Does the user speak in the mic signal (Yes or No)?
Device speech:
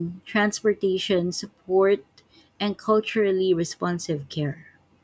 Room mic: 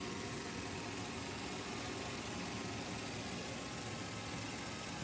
No